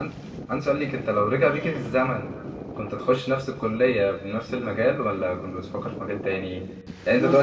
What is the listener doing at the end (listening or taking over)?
listening